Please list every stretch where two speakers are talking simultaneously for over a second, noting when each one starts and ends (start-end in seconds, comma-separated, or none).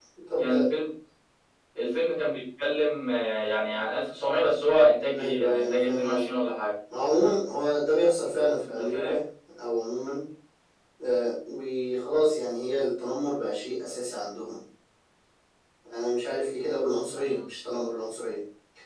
5.1-6.4